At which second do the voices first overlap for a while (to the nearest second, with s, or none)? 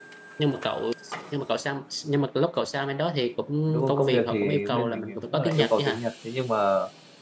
4 s